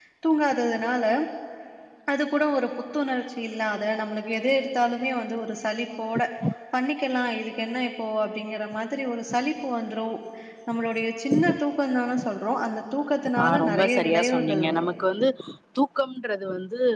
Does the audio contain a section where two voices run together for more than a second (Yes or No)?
Yes